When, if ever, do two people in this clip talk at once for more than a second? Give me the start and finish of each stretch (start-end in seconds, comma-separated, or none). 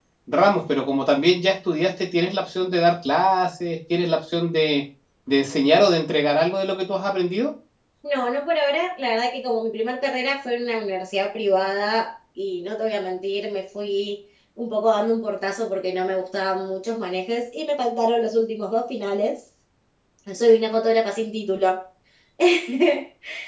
none